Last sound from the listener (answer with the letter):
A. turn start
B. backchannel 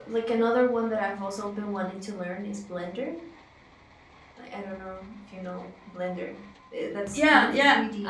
A